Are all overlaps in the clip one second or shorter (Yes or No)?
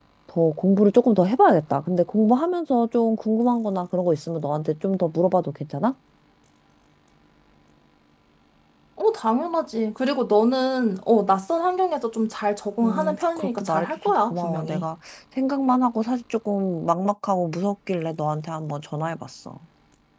No